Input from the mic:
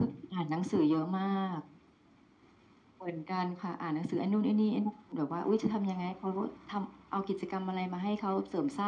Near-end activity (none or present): none